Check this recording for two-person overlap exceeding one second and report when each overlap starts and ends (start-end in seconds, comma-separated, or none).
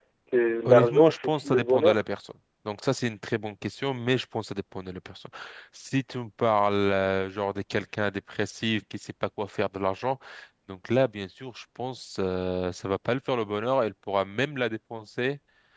0.7-2.0